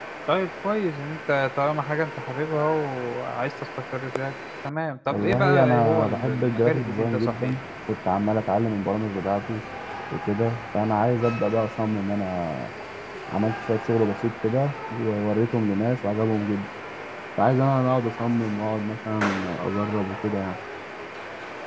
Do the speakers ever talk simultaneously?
Yes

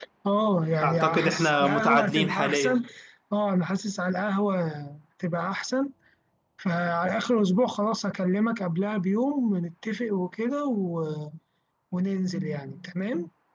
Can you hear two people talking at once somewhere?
Yes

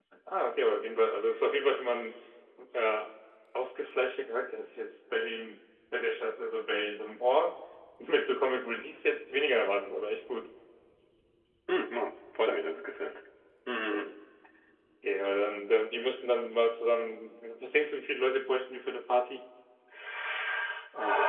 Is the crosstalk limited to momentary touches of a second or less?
Yes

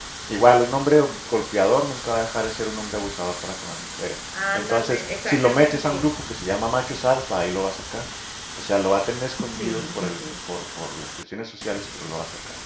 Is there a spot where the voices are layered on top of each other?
Yes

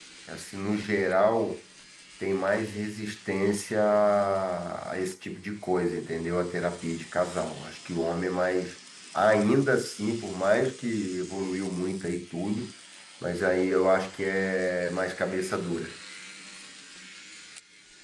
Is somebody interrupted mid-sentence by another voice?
No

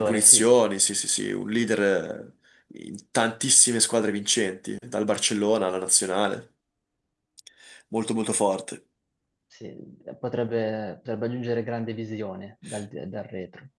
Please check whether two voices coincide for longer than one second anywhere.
No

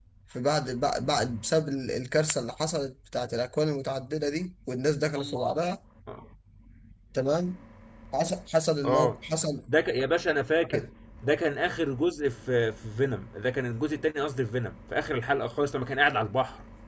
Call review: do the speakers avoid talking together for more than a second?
Yes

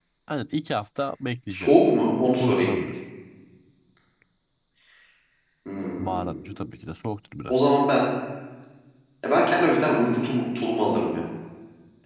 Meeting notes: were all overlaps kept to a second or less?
Yes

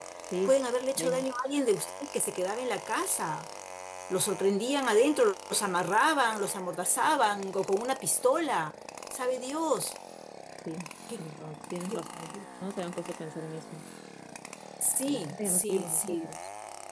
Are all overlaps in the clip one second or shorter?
No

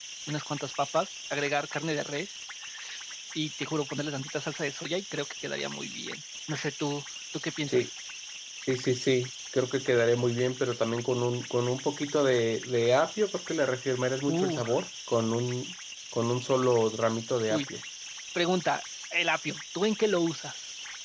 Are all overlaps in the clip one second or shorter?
Yes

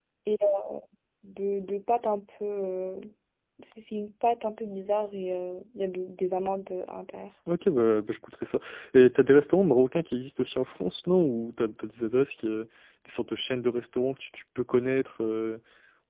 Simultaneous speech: No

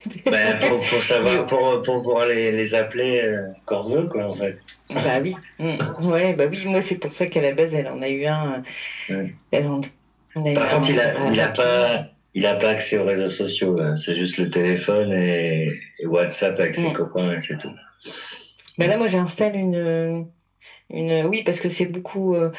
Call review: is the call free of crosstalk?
No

